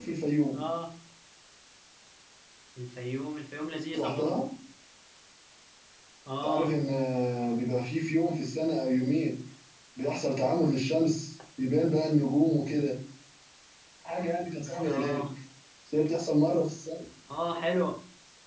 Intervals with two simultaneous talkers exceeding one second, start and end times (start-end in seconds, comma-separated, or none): none